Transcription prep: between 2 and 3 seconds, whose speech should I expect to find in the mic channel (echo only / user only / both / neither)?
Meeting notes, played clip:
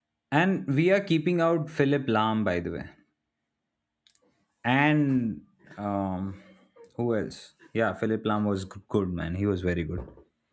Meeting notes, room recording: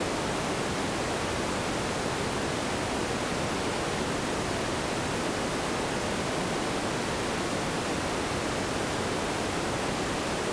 neither